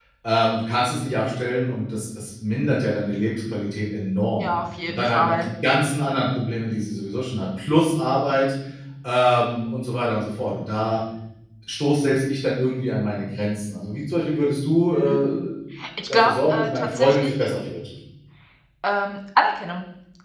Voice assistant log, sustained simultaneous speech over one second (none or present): present